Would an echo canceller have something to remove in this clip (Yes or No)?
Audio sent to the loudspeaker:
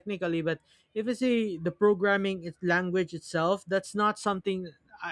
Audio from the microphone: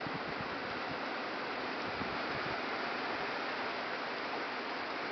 No